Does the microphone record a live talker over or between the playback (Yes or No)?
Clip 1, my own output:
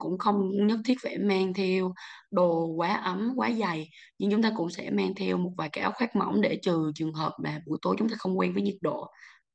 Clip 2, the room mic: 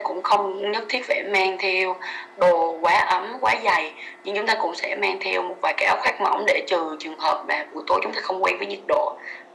No